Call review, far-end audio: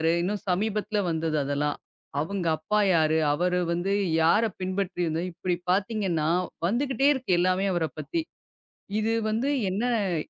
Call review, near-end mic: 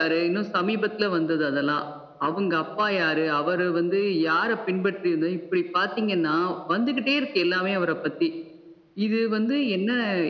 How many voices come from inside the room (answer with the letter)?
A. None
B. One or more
A